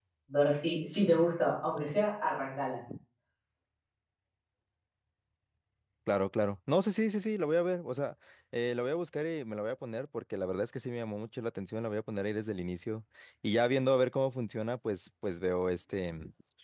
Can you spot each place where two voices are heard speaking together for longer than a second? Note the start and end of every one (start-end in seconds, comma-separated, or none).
none